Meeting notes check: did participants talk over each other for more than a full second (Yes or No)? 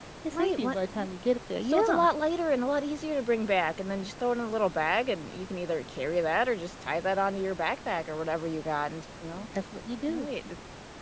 No